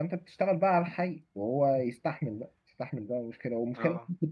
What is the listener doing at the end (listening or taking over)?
listening